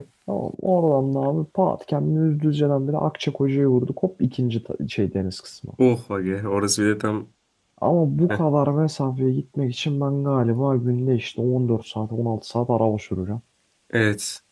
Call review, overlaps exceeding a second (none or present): none